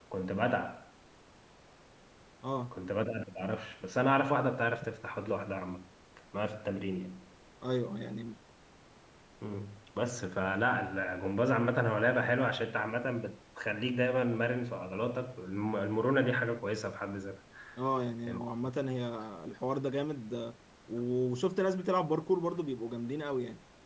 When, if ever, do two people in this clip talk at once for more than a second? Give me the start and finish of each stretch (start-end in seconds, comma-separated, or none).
none